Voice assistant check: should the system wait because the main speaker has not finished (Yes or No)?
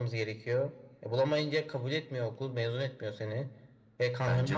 Yes